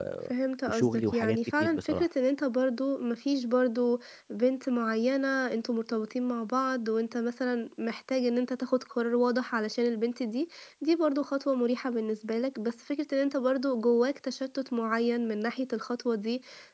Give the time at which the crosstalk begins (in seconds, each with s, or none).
0.7 s